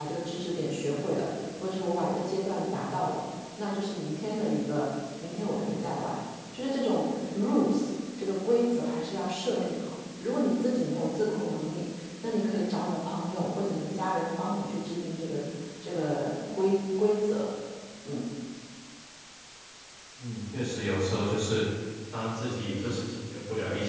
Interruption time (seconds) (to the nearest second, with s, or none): none